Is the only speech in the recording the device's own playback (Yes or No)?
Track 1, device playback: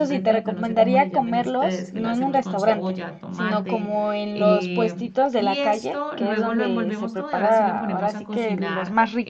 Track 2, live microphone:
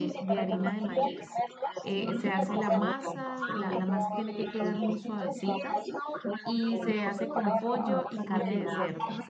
No